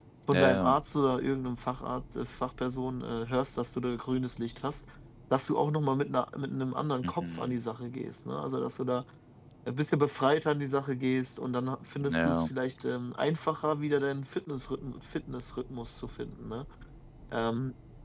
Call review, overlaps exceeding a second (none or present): none